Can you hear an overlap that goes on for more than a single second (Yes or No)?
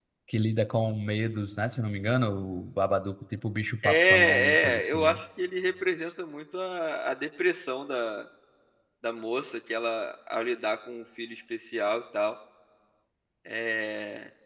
Yes